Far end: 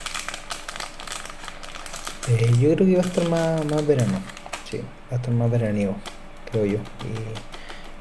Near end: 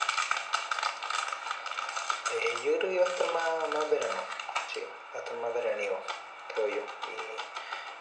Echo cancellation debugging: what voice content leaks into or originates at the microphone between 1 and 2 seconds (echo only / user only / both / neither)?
neither